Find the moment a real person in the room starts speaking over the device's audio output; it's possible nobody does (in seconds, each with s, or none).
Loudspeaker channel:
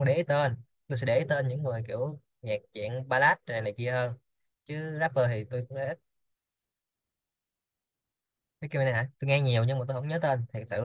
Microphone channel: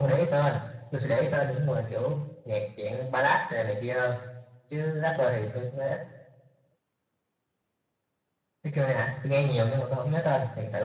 none